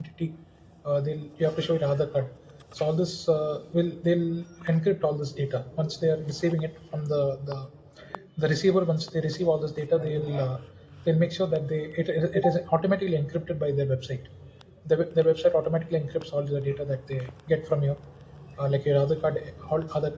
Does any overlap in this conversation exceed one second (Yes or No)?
No